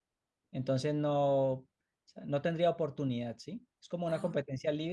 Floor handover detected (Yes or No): No